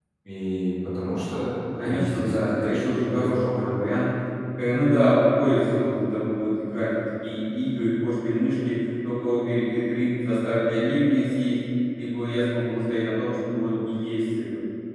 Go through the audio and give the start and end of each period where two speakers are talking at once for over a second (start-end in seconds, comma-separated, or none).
1.8-3.5